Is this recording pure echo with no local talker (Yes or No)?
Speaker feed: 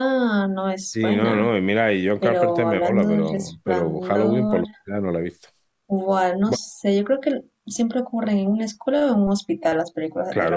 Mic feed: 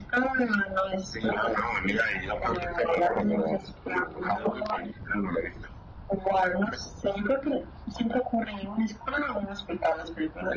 Yes